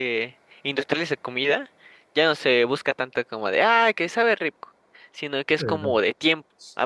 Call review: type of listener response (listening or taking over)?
listening